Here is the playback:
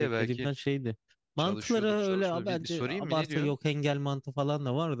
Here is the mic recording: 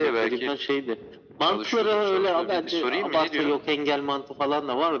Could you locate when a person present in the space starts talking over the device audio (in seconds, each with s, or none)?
none